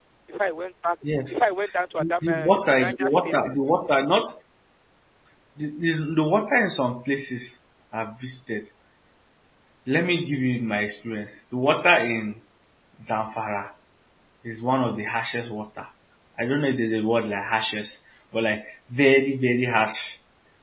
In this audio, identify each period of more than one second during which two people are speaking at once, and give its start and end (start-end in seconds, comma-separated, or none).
2.0-3.3